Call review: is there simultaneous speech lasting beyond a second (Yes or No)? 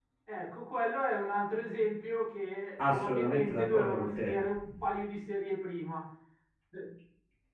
Yes